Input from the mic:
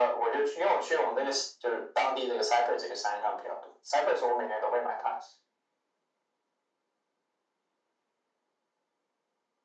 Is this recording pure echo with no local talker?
Yes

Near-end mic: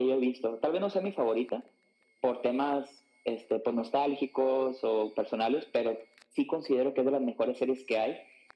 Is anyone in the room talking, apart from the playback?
No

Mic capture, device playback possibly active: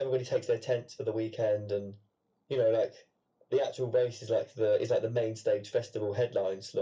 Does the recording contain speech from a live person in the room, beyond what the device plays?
No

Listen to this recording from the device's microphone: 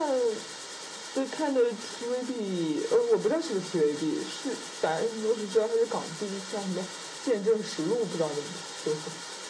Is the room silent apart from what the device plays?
Yes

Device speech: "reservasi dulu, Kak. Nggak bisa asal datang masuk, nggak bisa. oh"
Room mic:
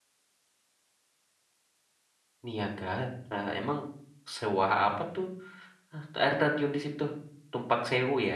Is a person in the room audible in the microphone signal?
Yes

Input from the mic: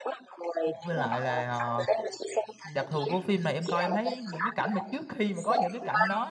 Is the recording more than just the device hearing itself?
Yes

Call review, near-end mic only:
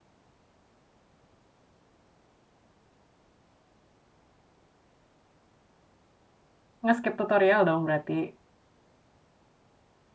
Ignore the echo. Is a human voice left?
Yes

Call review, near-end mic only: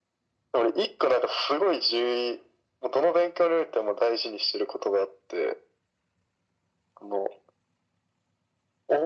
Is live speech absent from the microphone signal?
Yes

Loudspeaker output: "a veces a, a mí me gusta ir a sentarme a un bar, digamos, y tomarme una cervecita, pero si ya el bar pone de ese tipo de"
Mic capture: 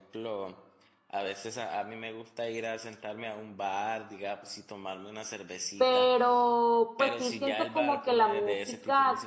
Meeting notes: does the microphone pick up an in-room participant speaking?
Yes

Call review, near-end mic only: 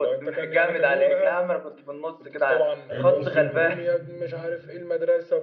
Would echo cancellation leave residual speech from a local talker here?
Yes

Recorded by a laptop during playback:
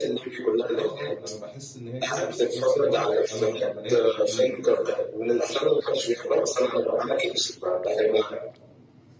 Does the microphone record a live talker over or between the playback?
Yes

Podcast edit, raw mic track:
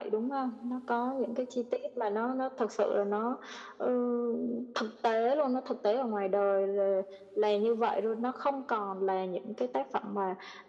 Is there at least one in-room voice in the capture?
No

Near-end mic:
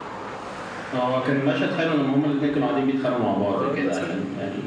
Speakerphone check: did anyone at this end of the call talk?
Yes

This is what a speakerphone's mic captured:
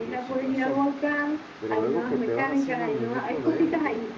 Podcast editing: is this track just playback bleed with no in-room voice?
No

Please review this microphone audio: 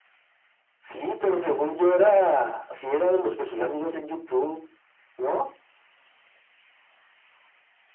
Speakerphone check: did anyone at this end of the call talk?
No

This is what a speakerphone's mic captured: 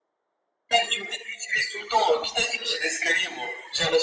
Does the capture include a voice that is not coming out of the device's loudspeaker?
No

